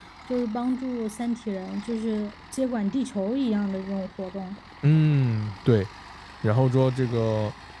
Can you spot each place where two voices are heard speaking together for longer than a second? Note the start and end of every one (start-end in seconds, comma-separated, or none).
none